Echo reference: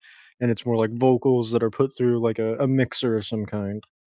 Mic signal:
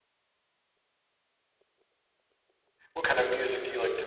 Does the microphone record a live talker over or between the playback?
Yes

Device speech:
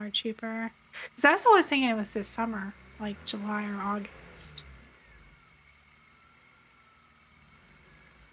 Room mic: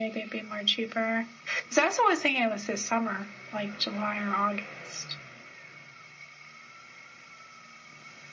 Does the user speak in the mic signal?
No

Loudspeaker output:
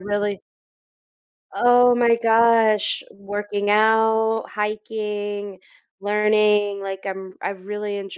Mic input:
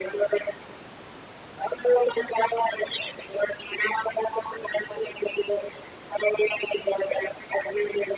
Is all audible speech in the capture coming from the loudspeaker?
Yes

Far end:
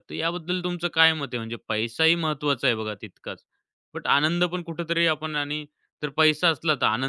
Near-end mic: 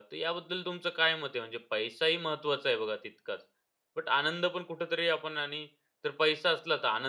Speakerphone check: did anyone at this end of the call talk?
No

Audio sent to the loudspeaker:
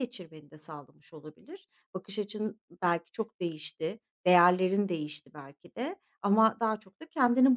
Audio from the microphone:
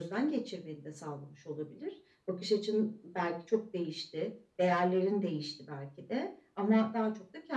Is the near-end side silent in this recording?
Yes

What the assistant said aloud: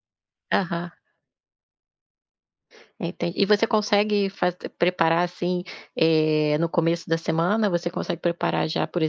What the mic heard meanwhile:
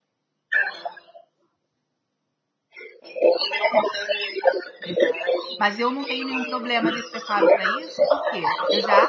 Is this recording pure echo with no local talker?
No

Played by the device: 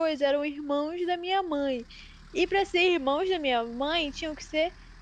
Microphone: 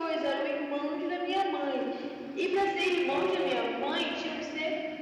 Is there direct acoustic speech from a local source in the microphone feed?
Yes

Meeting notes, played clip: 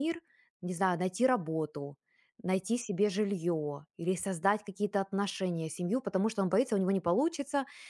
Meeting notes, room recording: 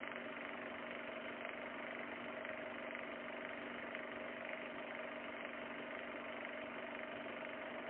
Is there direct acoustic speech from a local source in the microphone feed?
No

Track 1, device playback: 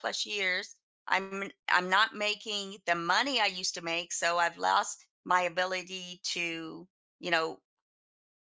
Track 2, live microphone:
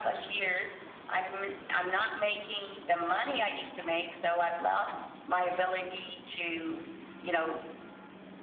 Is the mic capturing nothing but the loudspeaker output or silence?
Yes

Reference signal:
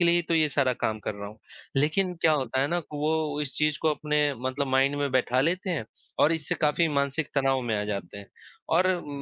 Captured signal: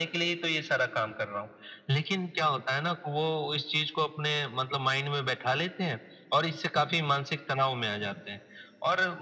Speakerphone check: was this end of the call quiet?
Yes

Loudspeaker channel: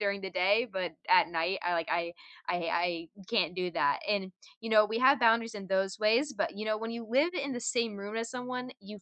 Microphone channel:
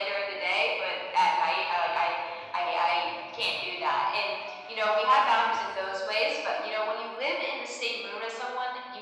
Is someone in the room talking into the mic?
No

